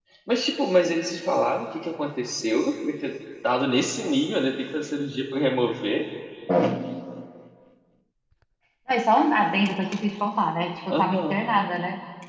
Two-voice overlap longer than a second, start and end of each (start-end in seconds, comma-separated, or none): none